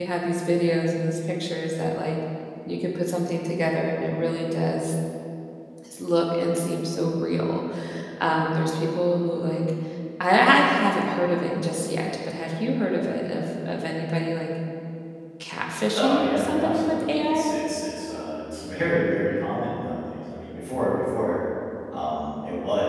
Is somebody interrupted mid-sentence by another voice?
Yes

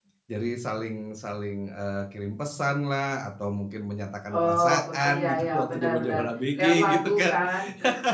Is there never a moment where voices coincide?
No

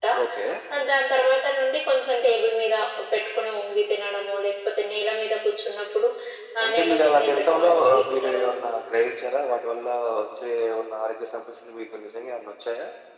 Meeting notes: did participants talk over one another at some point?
Yes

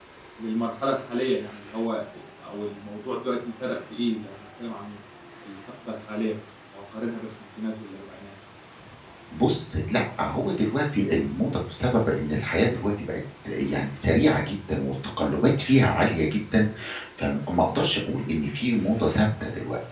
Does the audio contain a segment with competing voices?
No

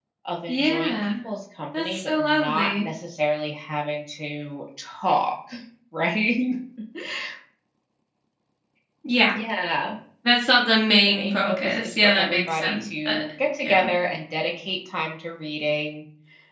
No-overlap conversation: No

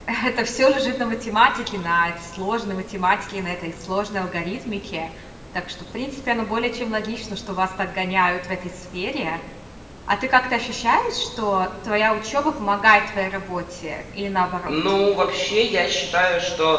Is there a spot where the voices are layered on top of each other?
No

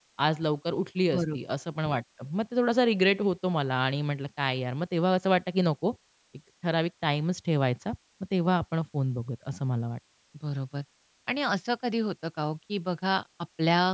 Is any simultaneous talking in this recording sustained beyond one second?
No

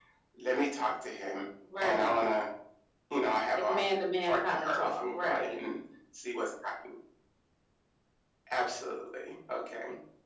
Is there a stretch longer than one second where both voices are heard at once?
Yes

